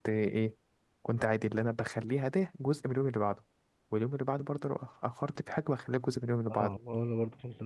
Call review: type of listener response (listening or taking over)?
taking over